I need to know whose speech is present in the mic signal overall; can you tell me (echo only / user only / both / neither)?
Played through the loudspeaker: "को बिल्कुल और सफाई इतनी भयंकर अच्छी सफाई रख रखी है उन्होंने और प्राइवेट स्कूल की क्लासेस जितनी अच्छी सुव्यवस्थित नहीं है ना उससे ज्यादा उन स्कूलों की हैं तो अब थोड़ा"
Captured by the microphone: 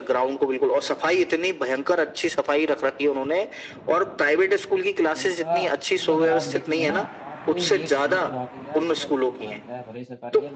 both